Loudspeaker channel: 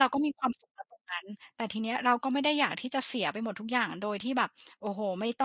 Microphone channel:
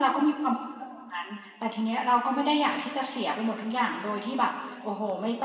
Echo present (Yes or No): Yes